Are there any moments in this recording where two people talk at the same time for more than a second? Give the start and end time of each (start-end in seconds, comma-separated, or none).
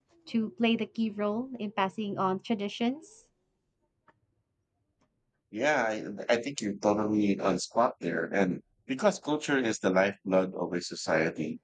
none